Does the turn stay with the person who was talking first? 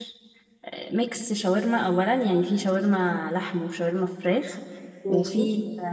Yes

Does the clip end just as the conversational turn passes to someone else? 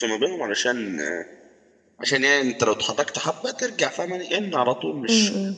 No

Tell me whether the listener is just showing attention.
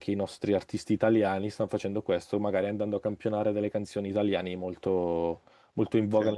Yes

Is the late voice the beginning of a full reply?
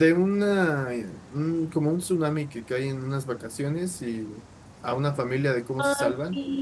Yes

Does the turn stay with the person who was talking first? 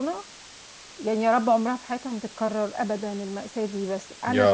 Yes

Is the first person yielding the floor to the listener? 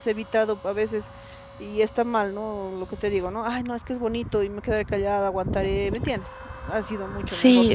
Yes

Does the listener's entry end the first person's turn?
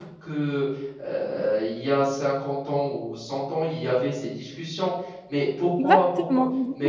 No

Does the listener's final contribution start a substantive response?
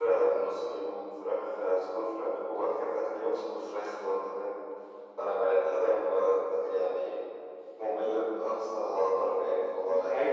Yes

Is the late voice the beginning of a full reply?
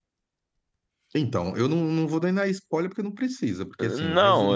Yes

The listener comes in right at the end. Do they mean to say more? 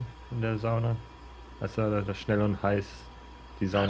Yes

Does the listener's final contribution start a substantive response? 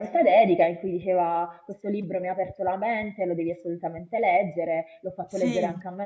No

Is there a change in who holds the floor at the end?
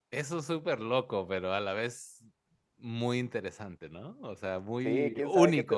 Yes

